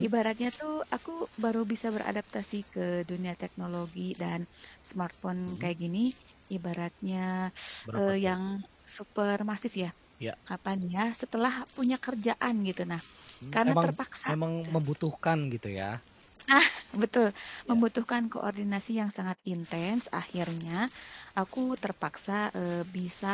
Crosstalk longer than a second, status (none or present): none